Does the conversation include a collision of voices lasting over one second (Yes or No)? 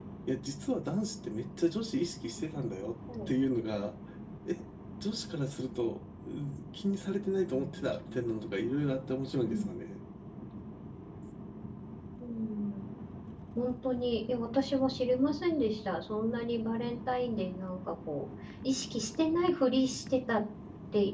No